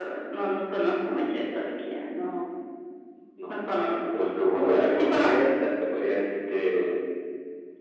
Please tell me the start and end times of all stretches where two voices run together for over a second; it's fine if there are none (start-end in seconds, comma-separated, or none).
3.5-5.5